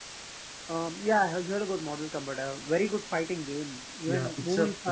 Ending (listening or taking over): taking over